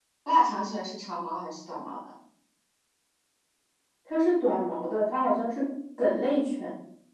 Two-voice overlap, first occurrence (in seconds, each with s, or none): none